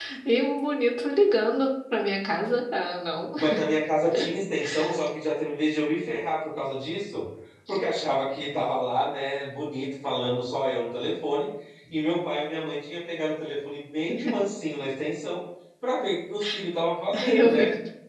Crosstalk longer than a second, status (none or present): none